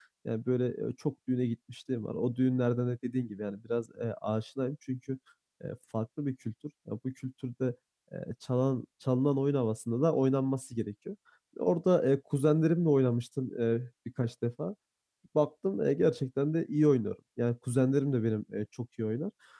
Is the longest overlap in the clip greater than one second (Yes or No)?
No